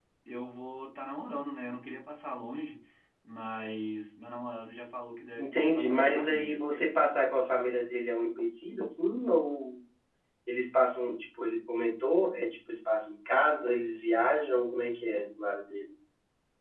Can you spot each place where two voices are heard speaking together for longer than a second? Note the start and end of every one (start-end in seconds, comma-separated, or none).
5.4-6.6